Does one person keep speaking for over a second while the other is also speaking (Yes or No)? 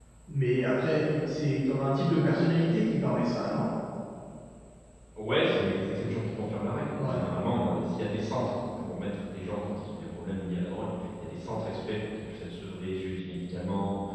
No